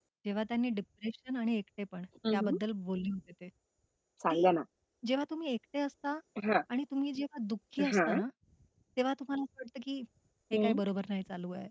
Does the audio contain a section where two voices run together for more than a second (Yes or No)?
No